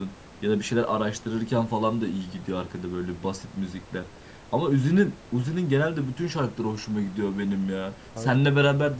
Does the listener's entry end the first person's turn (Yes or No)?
No